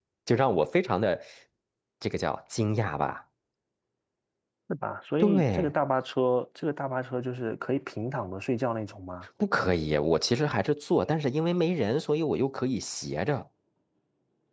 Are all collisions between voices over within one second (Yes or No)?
Yes